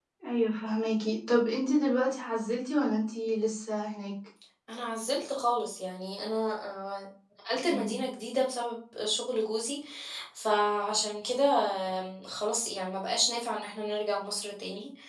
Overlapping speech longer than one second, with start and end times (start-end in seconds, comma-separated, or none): none